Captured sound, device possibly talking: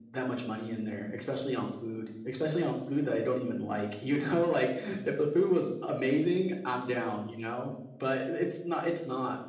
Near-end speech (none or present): none